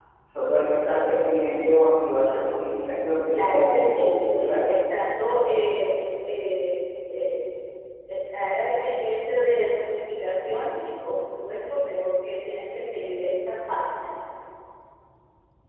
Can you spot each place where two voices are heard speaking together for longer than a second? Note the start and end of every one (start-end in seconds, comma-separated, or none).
3.3-4.6